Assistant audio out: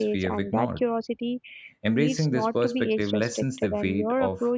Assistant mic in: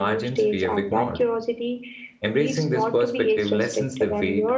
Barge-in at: none

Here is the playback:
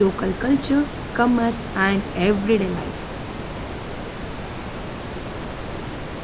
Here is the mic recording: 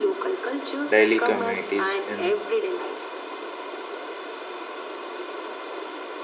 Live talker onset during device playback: 0.9 s

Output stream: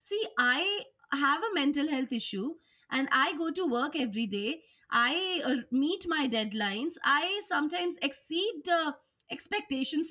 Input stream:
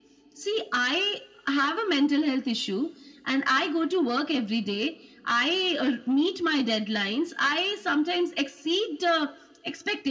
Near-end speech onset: none

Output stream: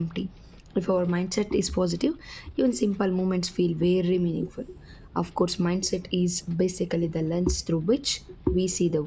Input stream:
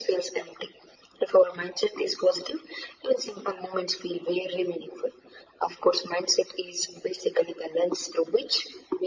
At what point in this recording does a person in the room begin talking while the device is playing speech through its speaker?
none

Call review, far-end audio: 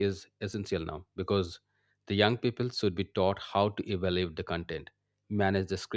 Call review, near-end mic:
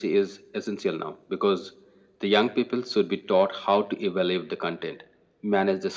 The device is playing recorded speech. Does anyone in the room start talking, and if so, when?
none

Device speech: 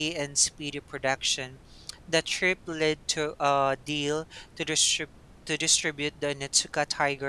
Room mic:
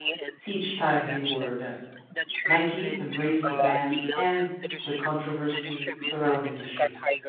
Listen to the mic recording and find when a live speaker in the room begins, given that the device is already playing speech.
0.4 s

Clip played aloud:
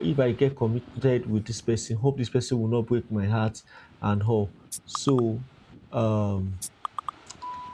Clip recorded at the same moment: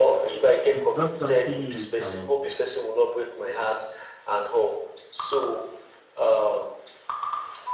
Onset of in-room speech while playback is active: 0.7 s

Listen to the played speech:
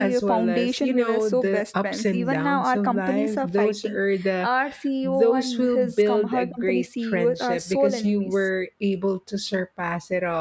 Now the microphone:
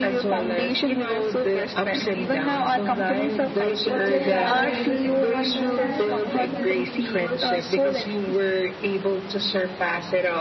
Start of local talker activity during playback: 3.8 s

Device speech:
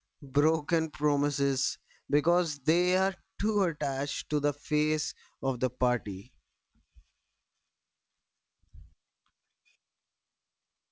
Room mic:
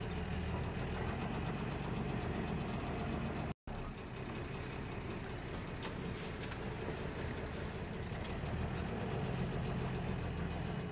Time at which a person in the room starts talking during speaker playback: none

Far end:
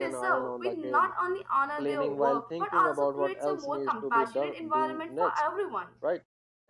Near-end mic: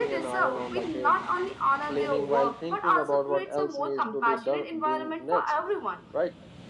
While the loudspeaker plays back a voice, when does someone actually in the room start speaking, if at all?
none

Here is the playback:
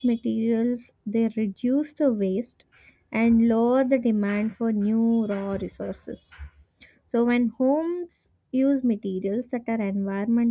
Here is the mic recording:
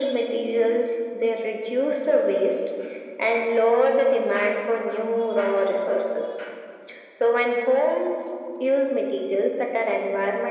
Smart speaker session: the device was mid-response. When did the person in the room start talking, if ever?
none

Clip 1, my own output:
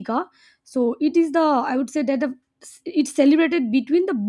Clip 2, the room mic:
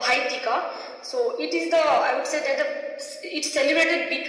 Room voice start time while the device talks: none

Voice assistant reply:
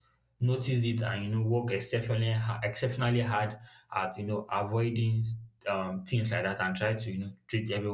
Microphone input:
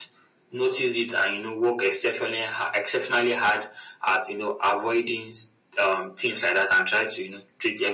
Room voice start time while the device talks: none

